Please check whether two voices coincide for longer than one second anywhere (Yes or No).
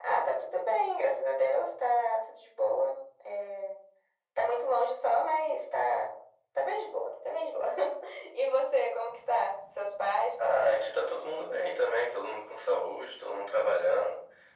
No